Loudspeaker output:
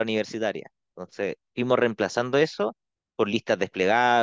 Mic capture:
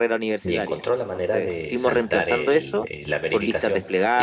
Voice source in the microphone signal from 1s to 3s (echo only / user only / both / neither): both